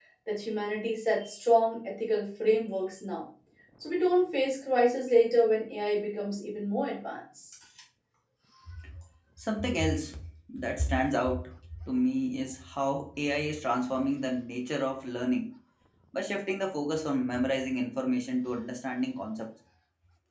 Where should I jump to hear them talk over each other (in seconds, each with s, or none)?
none